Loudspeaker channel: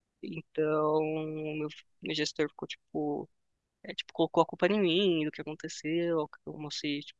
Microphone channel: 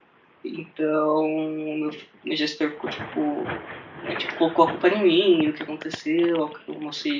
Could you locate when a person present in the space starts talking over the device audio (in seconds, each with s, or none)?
none